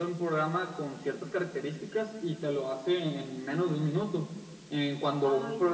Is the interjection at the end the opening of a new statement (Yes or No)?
No